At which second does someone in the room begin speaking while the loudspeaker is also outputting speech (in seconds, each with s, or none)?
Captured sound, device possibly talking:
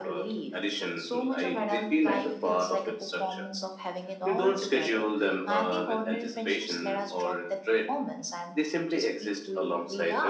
none